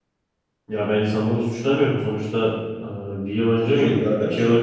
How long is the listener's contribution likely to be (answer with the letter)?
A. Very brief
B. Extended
B